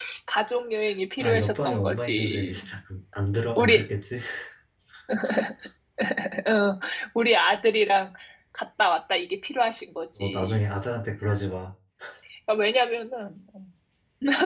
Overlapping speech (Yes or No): Yes